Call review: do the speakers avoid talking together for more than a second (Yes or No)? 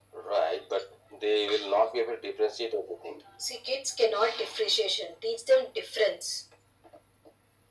Yes